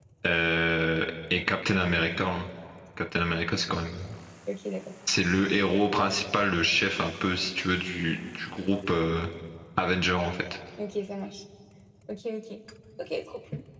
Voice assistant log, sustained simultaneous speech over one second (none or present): none